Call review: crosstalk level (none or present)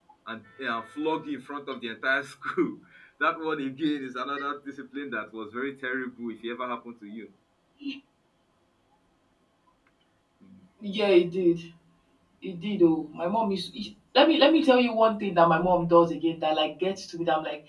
none